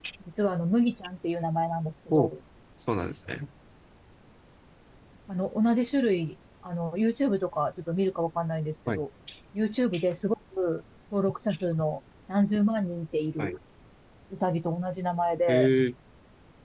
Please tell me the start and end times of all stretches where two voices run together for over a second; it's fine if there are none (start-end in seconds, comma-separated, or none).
none